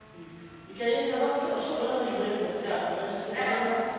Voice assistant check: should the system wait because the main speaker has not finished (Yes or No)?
Yes